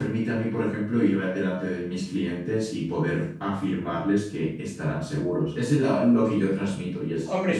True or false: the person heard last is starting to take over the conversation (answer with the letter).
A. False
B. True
B